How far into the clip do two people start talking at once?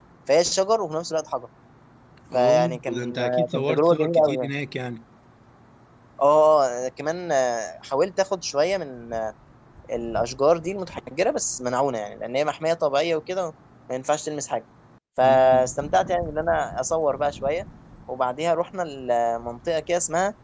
2.3 s

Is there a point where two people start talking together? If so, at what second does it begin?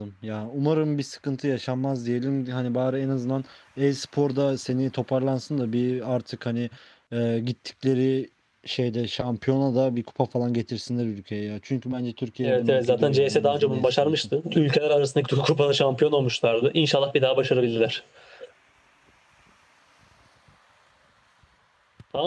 12.4 s

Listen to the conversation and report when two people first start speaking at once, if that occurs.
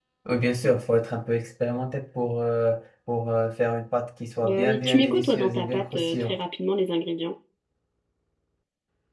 4.4 s

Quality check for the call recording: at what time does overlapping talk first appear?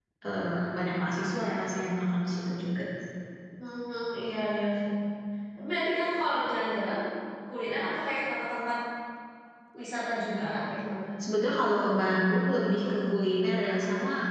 none

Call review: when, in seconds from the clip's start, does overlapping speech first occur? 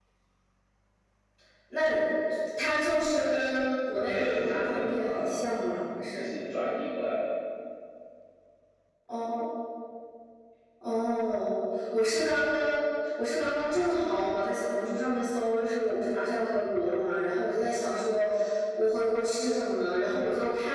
4.0 s

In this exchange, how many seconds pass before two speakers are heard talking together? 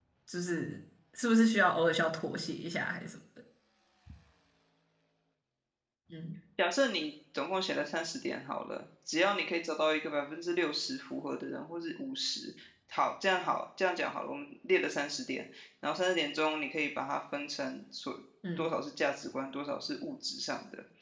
none

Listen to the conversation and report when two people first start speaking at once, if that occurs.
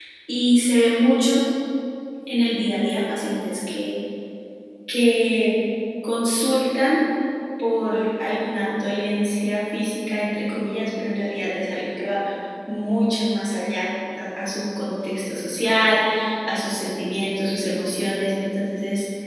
none

